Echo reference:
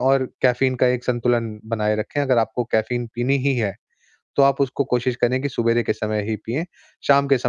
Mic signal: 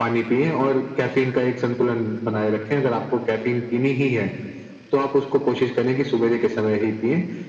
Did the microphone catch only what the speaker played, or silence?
Yes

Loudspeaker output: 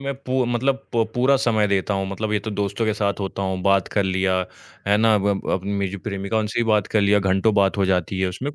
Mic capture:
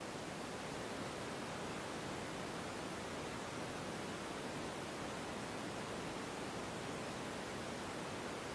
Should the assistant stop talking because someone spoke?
No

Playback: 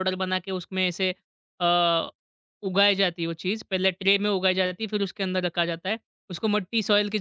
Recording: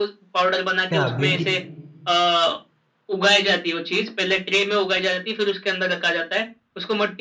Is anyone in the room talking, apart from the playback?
Yes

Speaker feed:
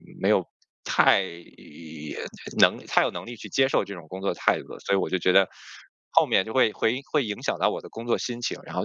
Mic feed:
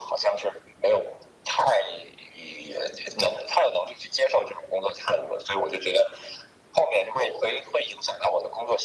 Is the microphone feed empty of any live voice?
Yes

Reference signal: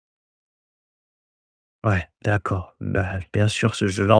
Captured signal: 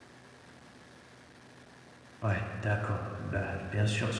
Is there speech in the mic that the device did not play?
No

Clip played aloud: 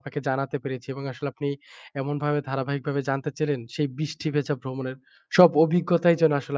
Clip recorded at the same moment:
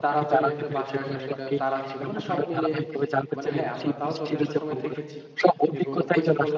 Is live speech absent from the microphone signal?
No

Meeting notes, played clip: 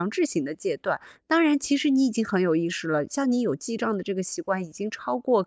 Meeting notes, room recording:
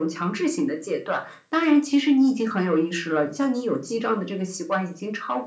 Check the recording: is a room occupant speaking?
No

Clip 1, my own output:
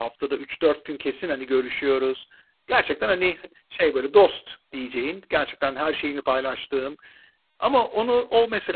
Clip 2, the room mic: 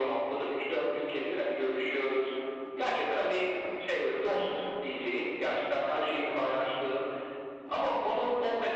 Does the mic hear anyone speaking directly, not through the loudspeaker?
No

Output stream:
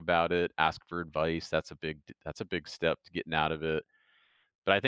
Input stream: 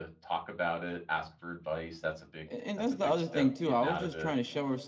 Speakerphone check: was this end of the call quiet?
No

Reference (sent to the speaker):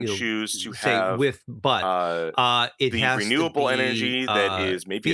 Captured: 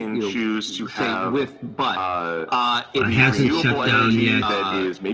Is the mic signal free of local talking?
No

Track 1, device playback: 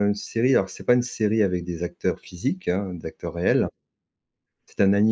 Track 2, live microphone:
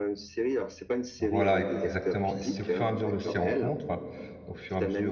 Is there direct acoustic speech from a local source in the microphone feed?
Yes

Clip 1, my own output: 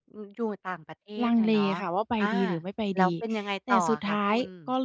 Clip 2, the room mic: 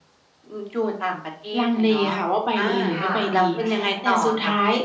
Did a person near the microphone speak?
Yes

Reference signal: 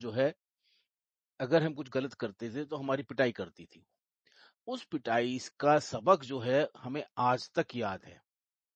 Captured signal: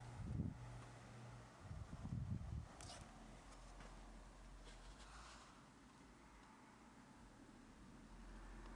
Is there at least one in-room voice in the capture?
No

